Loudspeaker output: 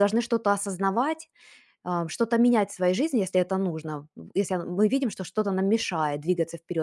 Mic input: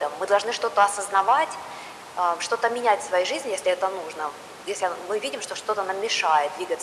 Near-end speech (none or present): none